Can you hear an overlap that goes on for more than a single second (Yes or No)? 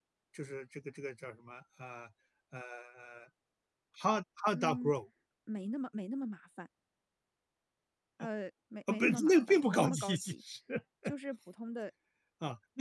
Yes